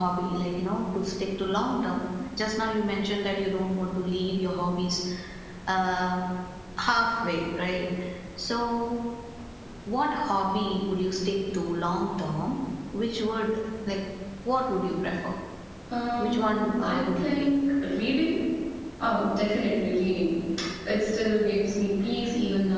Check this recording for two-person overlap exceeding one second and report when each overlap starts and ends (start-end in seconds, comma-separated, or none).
16.2-17.5